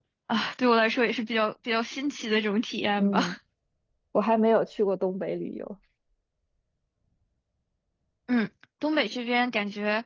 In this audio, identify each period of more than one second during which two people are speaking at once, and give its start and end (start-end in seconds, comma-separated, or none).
none